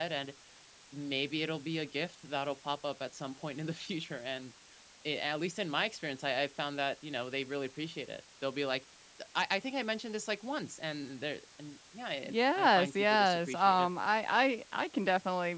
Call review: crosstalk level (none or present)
present